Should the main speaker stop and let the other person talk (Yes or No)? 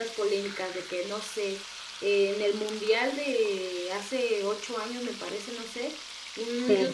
No